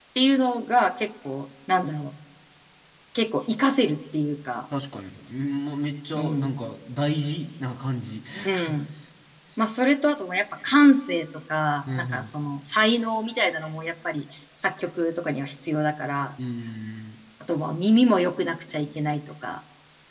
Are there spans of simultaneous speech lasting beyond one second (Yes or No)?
No